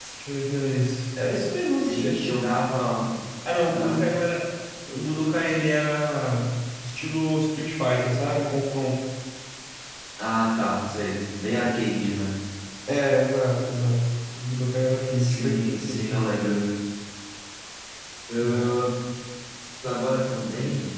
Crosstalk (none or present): present